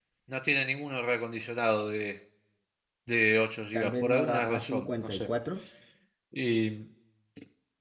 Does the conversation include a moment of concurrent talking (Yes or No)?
Yes